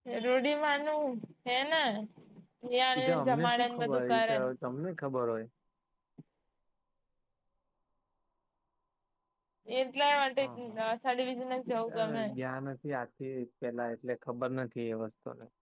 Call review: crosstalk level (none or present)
present